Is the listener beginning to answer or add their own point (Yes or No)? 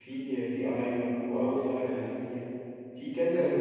No